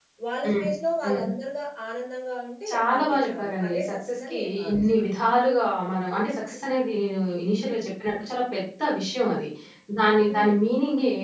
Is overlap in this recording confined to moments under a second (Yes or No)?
No